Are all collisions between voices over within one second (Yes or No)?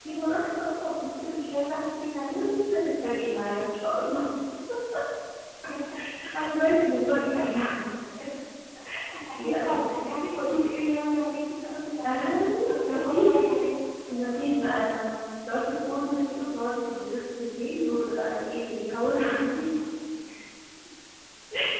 No